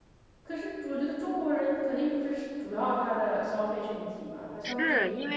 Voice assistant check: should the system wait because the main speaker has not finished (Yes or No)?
No